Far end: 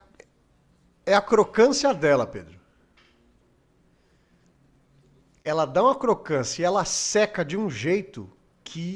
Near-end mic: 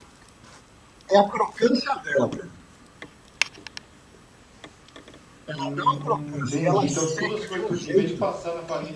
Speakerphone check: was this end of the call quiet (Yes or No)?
No